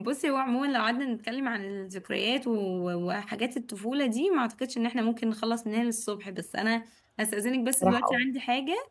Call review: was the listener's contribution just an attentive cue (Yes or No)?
Yes